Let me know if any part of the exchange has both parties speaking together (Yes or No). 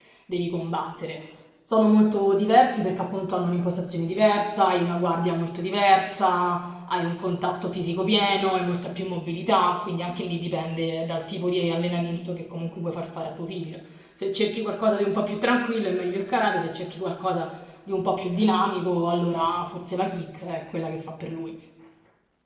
No